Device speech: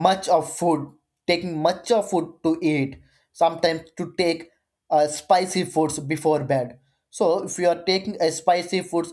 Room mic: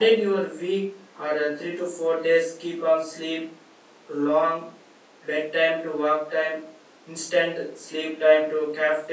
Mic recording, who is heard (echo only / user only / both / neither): user only